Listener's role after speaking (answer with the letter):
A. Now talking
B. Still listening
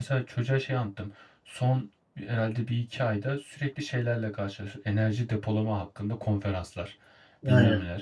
B